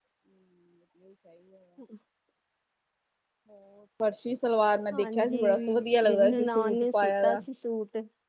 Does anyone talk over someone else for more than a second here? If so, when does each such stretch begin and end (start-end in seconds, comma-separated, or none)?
4.9-7.4